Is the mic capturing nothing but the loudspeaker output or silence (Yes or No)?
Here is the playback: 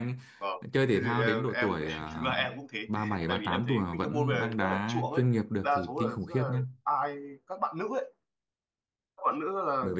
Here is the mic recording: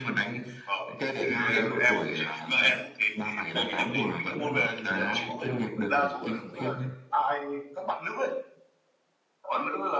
Yes